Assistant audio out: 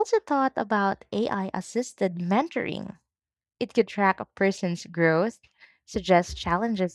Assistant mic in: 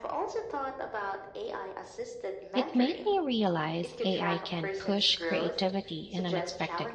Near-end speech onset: 3 s

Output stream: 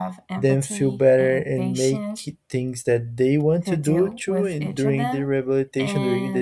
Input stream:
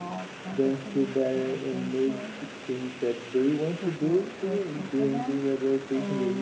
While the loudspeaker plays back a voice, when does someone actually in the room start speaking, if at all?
none

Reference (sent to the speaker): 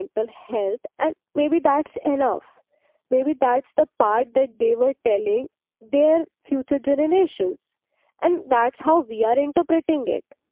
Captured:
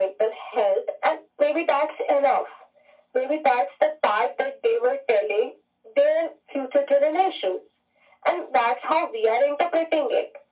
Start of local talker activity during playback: none

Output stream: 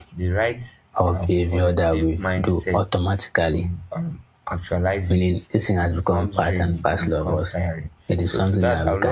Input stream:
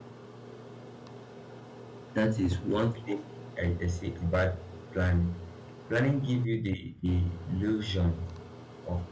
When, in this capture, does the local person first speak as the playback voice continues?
2 s

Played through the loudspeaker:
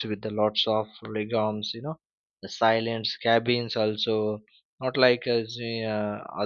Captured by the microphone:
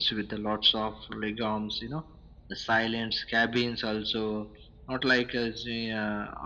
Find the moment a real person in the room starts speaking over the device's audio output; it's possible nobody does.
none

